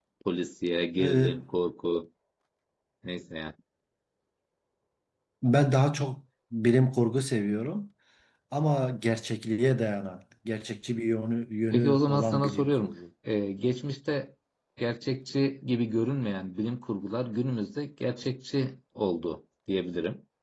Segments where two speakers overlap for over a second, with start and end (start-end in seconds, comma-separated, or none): 11.7-12.9